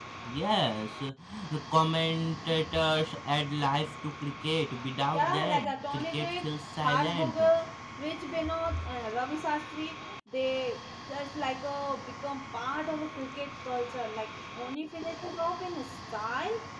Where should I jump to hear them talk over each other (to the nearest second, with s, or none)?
5 s